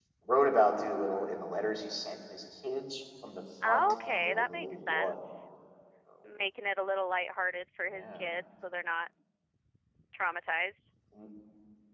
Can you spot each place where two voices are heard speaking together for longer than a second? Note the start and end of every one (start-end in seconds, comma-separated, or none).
3.6-5.1